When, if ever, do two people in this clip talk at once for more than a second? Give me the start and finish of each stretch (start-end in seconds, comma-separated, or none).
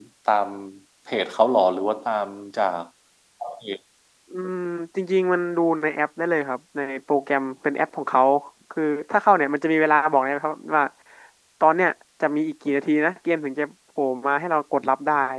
none